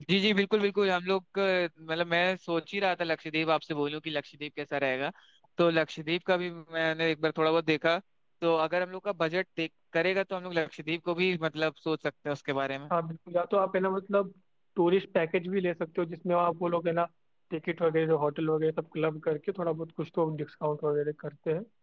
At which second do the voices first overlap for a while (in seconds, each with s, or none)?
none